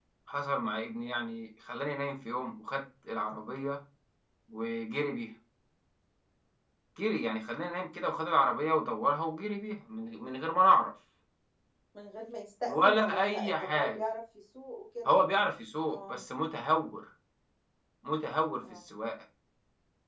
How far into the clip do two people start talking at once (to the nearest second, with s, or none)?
13 s